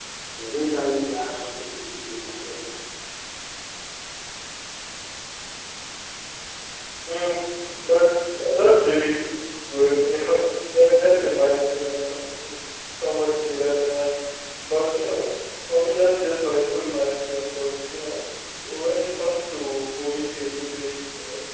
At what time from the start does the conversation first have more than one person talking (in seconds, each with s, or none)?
none